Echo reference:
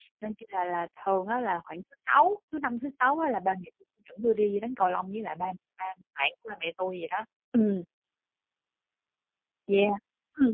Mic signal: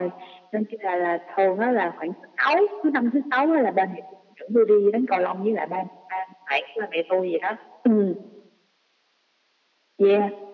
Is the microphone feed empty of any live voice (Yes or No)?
Yes